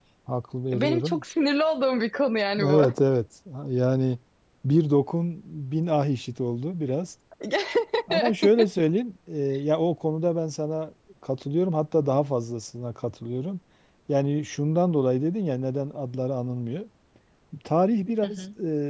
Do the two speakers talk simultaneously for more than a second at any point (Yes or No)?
No